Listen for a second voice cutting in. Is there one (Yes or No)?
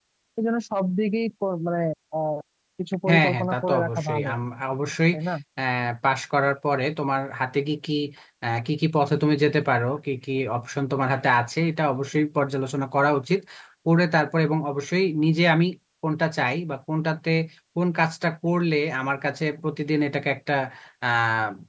Yes